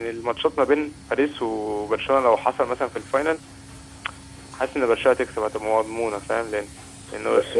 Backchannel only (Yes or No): No